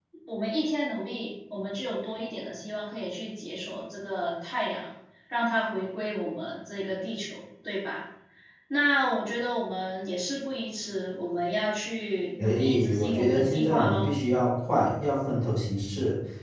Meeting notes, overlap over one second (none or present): present